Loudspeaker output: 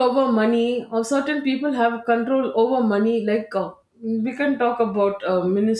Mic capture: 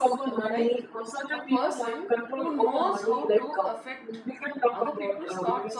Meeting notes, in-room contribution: present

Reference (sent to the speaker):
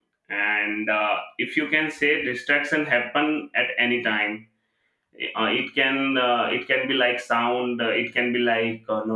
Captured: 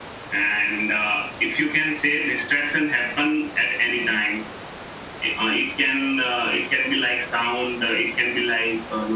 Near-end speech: none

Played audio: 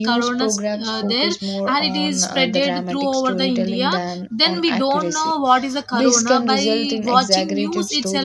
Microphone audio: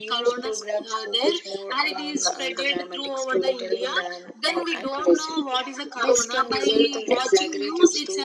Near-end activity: none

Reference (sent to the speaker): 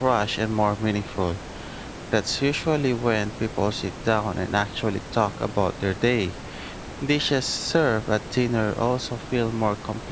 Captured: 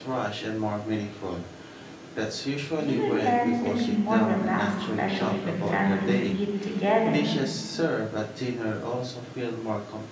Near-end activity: present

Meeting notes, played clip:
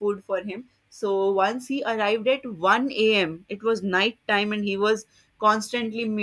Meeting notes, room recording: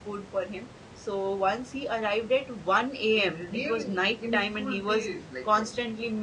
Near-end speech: present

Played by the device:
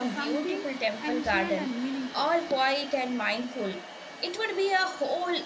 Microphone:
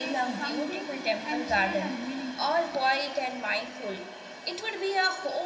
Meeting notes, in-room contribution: none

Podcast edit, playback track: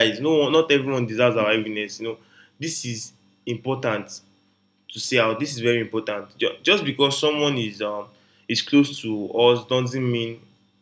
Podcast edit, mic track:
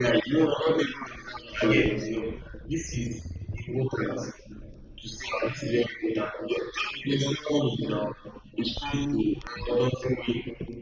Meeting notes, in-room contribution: present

